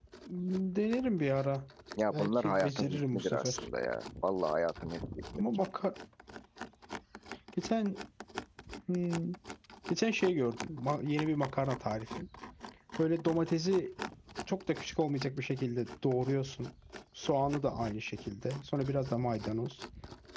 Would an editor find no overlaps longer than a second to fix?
No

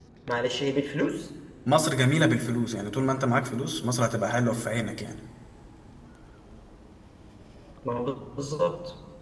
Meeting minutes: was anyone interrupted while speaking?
No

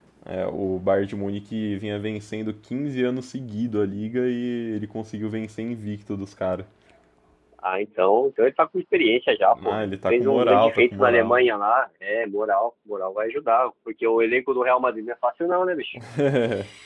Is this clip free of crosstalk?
No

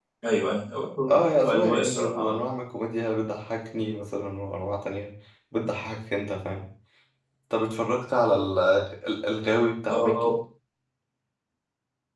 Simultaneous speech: Yes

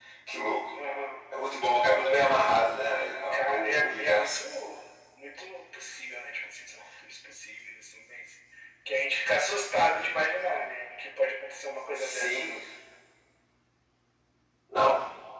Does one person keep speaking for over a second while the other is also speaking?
Yes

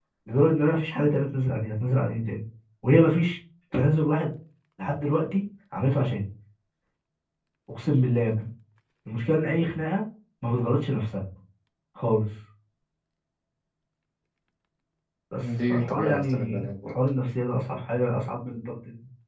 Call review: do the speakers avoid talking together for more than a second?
No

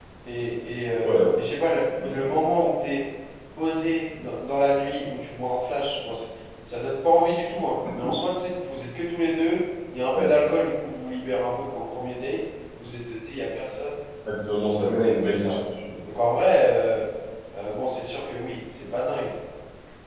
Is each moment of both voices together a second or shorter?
Yes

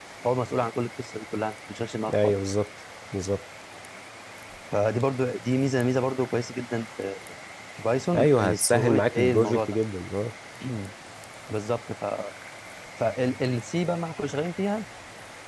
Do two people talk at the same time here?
Yes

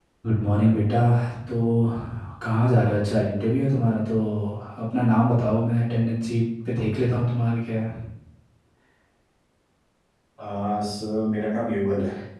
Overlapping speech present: No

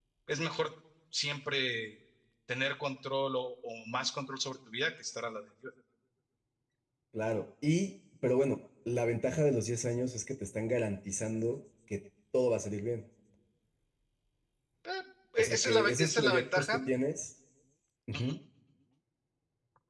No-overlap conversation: No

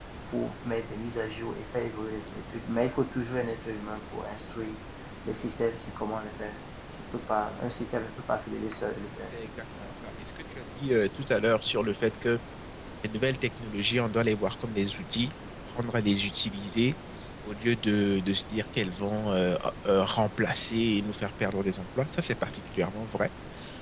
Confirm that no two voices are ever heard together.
Yes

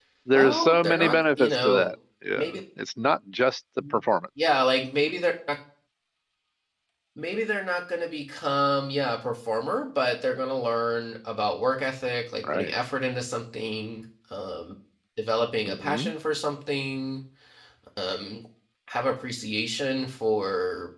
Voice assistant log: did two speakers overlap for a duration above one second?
Yes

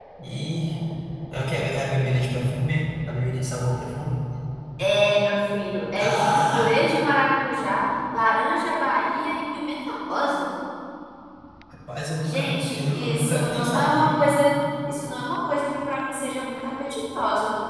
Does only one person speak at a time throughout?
No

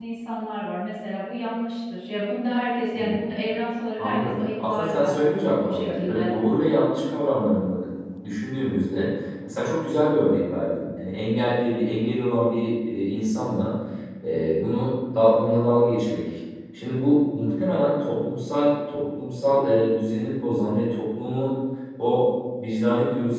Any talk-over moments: Yes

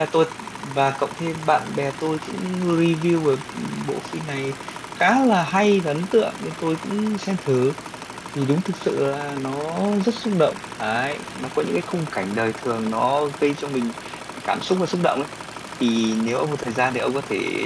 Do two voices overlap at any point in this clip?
No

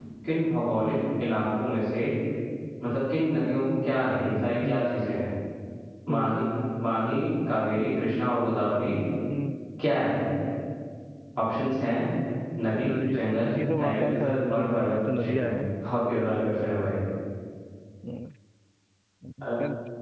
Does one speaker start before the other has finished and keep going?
Yes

